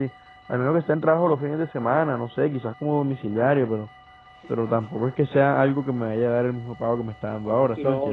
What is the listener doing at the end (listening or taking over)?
taking over